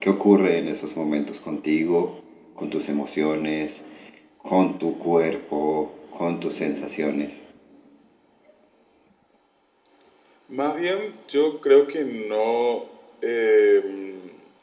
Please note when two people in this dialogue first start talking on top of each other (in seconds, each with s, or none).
none